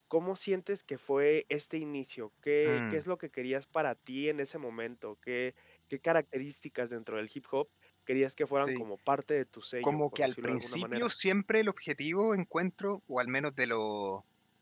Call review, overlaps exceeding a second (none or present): present